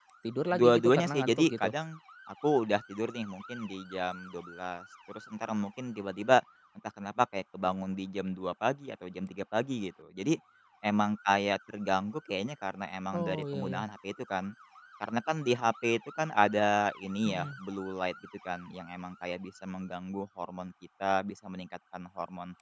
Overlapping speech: Yes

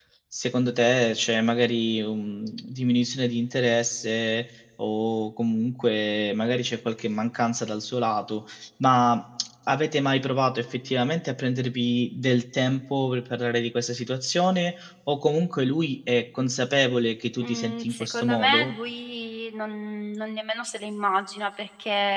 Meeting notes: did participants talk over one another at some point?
Yes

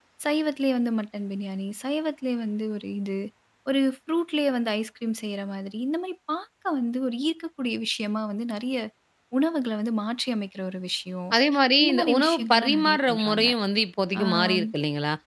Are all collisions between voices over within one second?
No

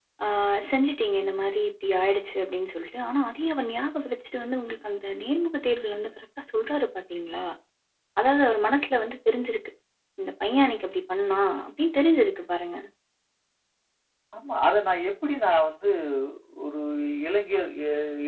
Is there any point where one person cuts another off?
No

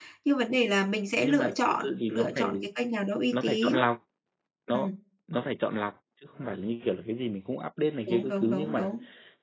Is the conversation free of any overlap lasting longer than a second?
No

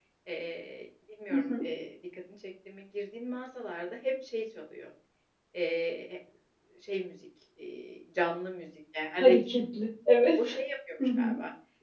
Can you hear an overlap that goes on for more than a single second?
No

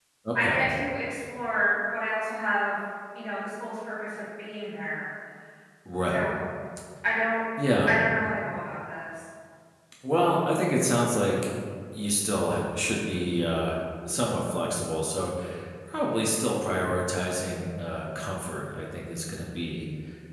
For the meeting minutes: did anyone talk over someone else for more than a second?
No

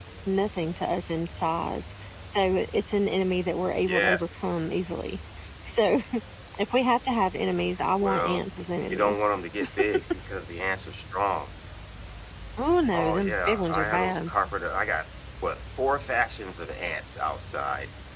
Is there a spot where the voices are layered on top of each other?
Yes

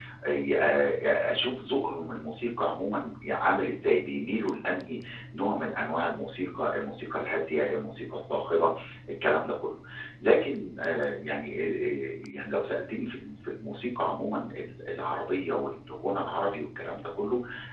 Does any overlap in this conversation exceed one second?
No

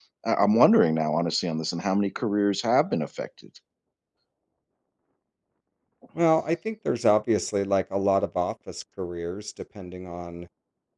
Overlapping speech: No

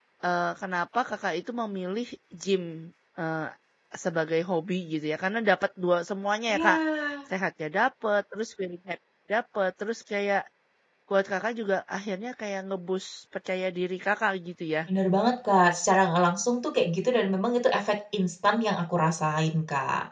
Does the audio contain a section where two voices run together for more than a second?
No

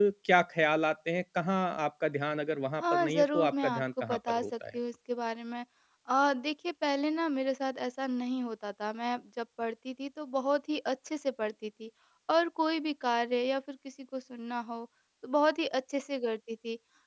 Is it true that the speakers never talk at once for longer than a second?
No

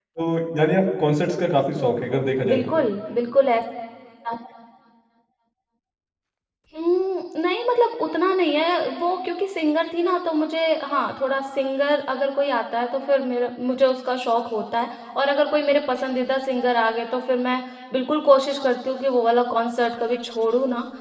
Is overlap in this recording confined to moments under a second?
Yes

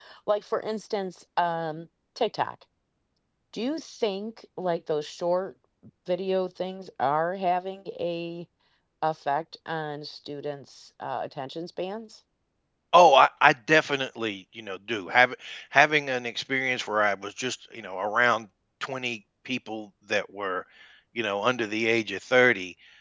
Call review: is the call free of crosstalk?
Yes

